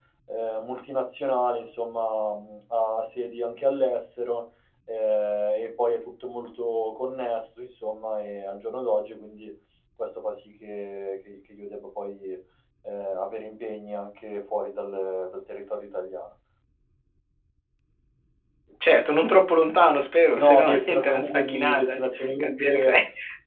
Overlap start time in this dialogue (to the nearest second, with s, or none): 20 s